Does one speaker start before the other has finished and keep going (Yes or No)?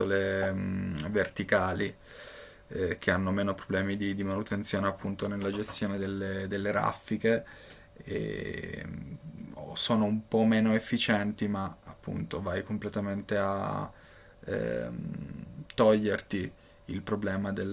No